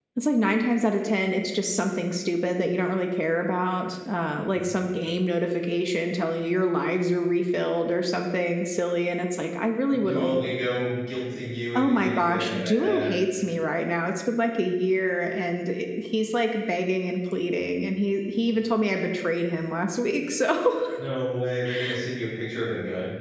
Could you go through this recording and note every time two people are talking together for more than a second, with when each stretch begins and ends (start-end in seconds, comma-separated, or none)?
11.8-13.1